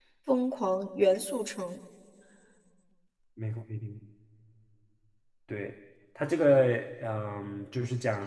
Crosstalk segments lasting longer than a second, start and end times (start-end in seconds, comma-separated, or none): none